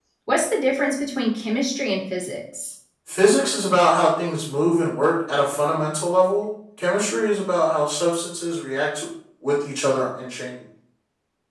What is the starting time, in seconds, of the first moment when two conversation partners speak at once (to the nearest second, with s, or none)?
none